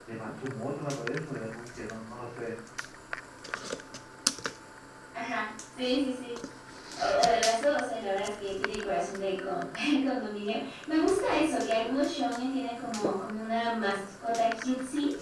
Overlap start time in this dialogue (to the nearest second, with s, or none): none